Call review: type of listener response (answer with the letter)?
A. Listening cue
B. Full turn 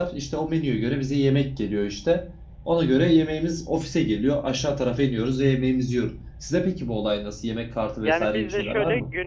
B